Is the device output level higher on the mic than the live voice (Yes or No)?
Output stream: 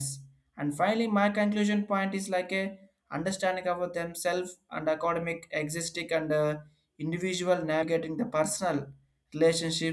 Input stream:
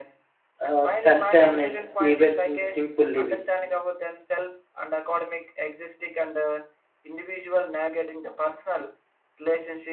No